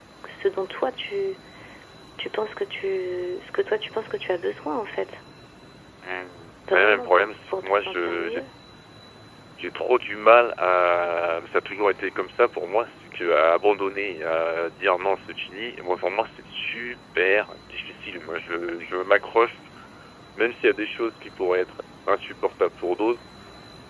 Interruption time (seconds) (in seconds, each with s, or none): 6.7 s